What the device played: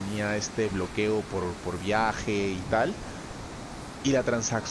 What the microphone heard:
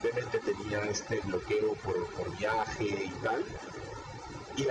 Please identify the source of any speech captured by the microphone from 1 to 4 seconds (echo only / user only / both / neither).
echo only